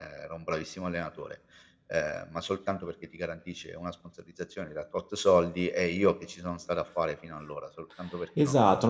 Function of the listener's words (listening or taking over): taking over